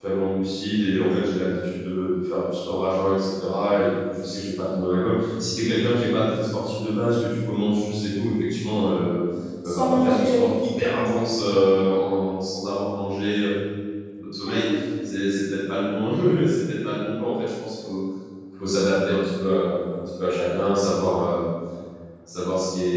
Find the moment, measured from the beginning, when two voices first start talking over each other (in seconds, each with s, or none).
9.7 s